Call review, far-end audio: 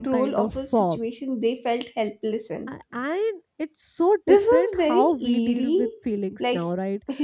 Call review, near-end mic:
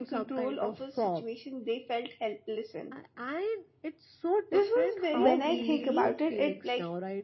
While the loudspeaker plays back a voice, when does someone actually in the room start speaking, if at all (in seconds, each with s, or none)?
5.2 s